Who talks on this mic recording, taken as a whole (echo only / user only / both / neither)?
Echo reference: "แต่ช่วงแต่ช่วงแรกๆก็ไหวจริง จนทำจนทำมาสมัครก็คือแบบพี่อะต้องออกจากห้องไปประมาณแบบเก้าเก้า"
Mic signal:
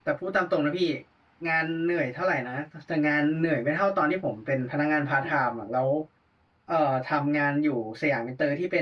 user only